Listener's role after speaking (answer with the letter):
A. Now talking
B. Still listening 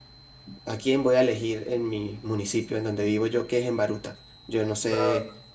B